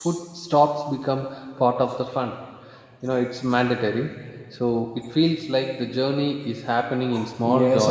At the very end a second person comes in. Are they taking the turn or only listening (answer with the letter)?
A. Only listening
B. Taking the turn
B